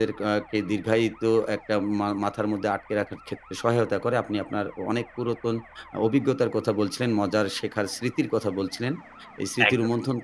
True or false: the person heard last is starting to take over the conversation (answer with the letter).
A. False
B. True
A